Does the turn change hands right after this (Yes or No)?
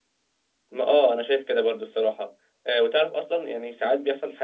No